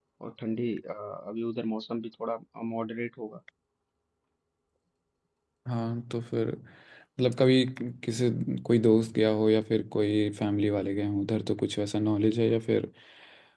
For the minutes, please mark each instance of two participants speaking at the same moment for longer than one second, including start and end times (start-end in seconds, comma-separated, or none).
none